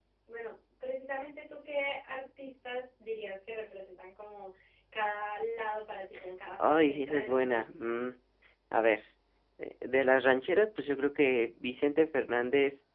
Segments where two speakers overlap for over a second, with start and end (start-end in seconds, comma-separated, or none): 6.6-8.0